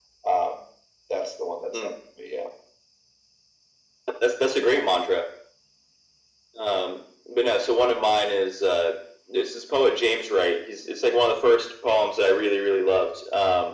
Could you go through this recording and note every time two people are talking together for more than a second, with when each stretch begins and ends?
none

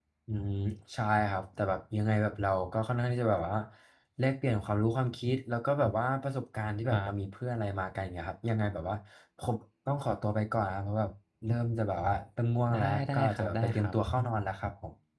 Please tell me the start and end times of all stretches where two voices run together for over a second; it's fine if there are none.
12.7-13.9

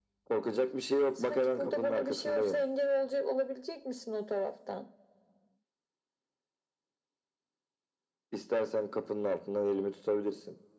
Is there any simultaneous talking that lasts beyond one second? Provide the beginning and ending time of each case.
1.3-2.6

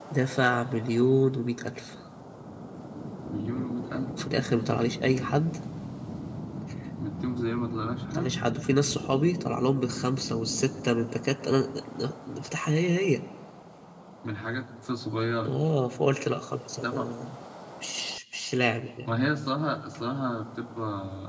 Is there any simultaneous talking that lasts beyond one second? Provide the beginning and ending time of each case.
none

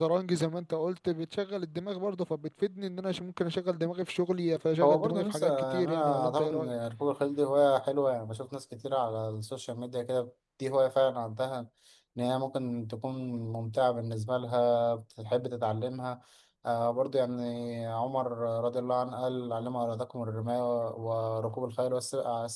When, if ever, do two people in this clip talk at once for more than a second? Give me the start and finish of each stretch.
4.8-6.7

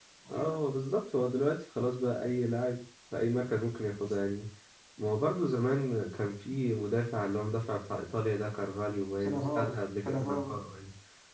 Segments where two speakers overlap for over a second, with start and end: 9.2-10.6

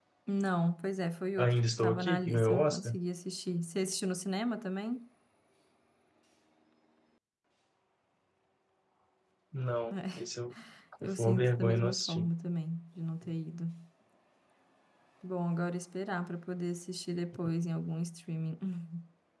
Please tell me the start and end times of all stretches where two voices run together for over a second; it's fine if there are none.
1.4-3.0, 11.0-12.3

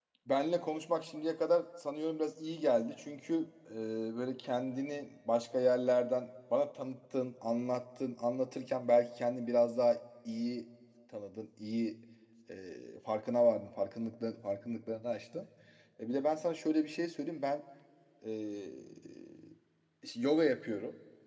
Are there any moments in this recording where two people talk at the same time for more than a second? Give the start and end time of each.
none

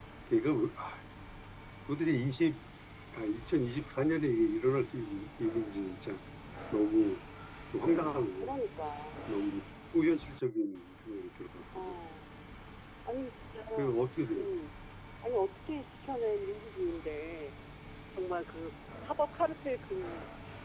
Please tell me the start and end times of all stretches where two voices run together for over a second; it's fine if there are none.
none

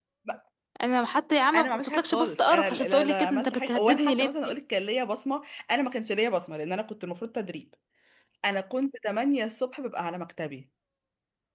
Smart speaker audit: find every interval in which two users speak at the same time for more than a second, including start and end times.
1.5-4.5

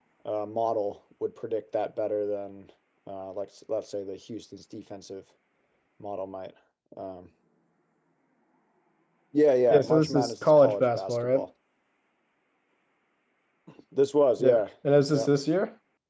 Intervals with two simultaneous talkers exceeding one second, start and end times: 9.7-11.4

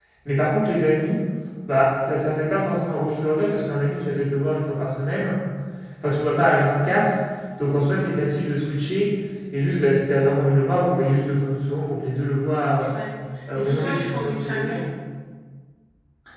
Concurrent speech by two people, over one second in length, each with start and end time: 13.5-14.8

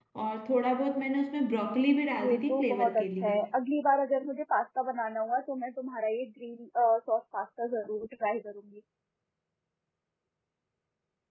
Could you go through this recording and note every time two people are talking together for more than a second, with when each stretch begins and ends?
2.2-3.4

